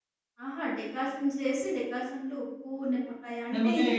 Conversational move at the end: listening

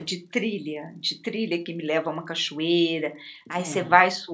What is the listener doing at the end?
listening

